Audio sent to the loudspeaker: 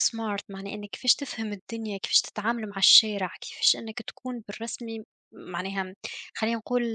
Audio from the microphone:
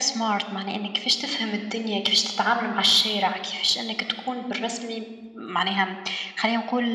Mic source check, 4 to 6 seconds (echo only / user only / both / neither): echo only